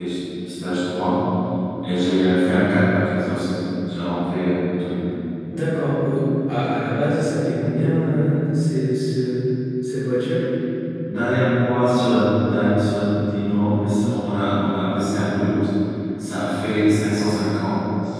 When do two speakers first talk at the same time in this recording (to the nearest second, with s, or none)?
none